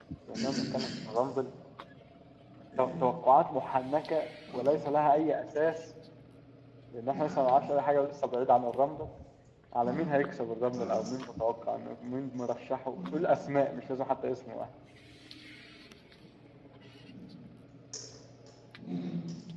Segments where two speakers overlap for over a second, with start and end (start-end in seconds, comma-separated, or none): none